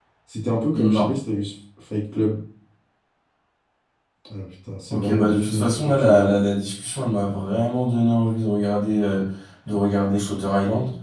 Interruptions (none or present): present